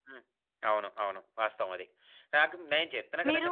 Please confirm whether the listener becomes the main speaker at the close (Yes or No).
No